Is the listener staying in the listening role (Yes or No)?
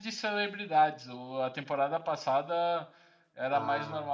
Yes